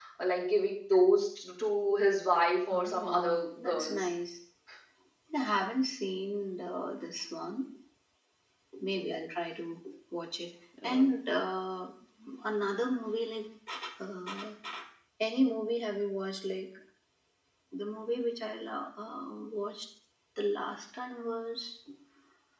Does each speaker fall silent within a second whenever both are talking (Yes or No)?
No